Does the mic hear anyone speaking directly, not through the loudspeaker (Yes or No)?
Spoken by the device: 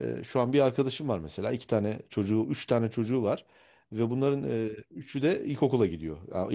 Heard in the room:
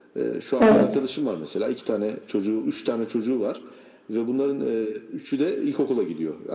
Yes